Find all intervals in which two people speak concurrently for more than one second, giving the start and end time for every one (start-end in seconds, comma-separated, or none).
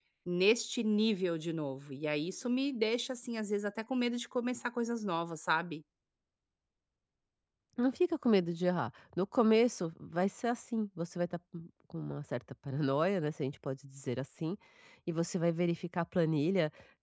none